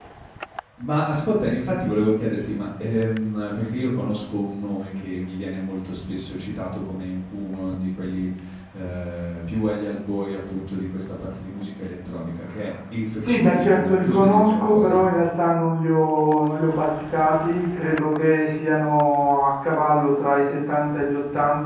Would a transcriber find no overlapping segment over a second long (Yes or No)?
No